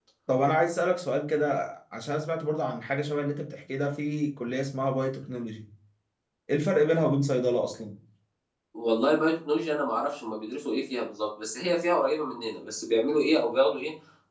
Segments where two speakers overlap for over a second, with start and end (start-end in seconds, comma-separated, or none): none